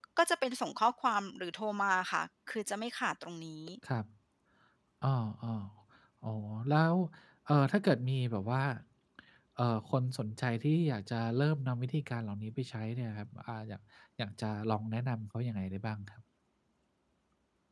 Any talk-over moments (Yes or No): No